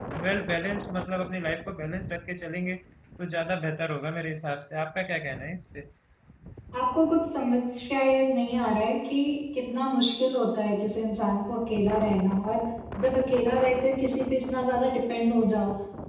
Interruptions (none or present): none